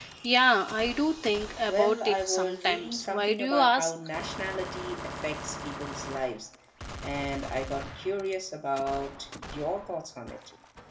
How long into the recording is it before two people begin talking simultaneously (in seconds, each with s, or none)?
1.7 s